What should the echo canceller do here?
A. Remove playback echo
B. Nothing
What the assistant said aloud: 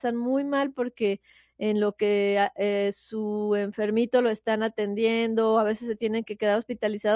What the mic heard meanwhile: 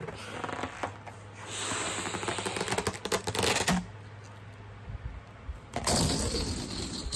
B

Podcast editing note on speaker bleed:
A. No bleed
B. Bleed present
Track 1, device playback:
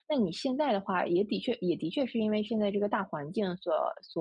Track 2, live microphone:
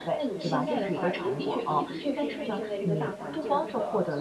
B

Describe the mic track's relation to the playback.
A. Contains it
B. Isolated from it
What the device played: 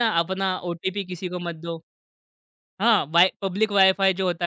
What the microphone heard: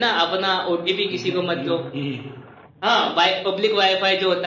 A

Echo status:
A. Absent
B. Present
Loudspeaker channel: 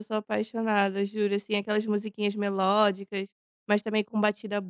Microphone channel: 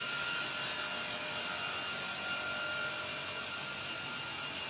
A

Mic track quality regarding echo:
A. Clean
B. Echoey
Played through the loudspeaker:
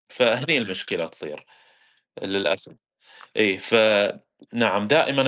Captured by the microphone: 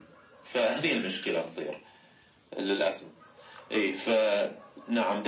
B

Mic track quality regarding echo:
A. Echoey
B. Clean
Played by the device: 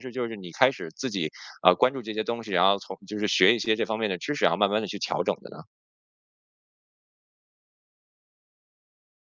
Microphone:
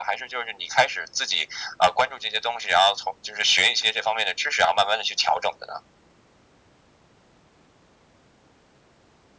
A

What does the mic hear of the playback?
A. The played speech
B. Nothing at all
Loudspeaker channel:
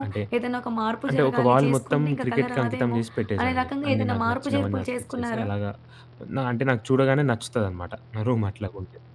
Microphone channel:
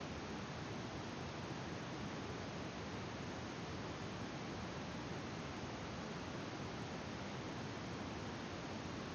B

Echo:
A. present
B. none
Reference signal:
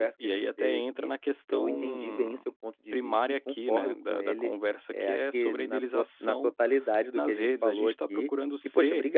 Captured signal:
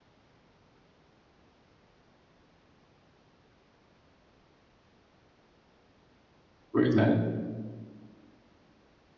B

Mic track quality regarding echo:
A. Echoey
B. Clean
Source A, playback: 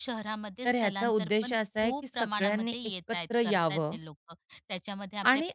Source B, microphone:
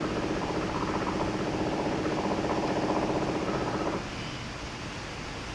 B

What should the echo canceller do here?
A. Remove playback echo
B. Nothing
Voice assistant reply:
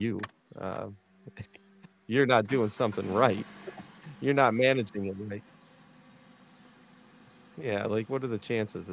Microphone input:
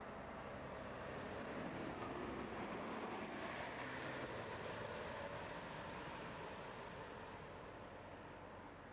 B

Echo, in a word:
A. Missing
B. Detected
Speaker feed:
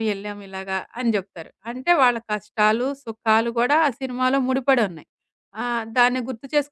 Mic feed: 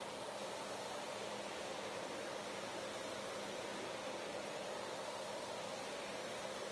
A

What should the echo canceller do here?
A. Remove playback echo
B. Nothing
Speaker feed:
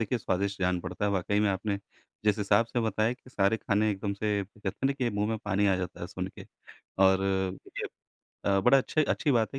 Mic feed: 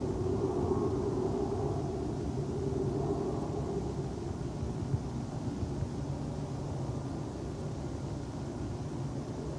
B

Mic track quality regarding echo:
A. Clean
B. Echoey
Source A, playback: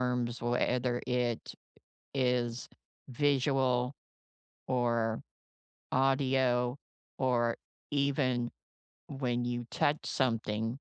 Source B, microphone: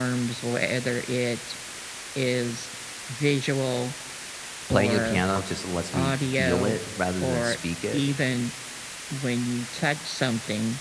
B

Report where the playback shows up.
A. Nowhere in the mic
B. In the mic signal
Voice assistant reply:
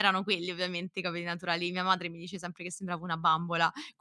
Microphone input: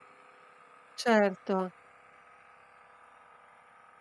A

